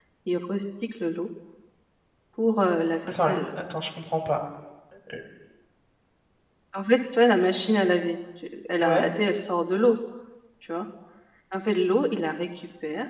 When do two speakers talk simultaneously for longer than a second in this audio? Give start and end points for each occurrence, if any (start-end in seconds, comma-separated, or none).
none